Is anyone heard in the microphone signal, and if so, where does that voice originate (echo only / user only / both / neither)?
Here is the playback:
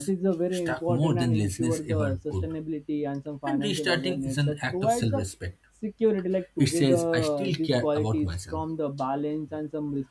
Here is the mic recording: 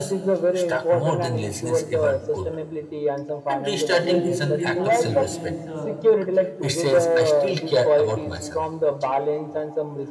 both